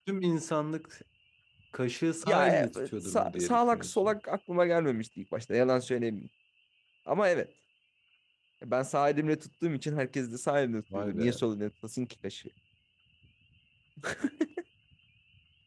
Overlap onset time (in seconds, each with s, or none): 2.2 s